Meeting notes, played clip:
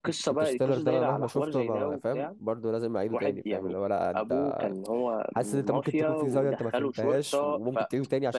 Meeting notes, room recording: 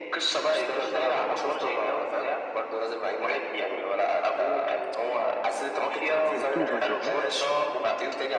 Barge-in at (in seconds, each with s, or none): 6.2 s